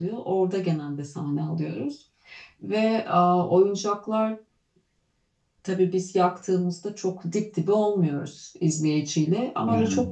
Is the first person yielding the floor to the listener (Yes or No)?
No